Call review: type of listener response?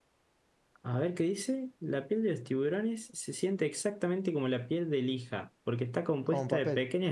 listening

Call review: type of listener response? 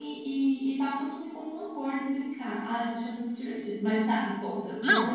taking over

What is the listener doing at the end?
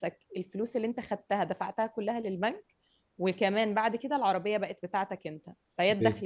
listening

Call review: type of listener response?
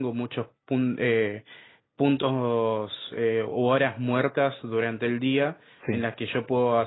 listening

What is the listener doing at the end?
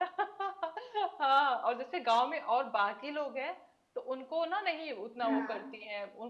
listening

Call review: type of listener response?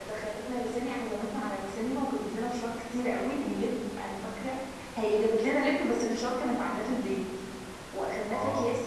listening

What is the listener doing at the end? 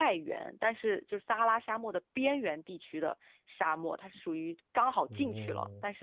listening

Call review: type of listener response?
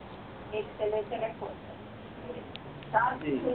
listening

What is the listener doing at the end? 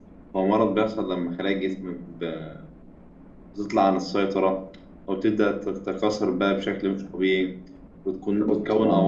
listening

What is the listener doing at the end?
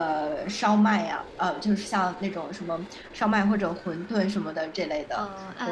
taking over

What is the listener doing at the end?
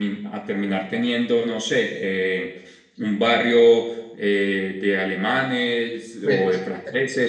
listening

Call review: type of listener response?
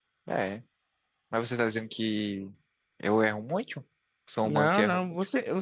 taking over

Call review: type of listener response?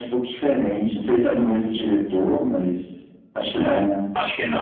taking over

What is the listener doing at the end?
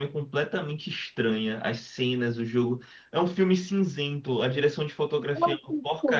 taking over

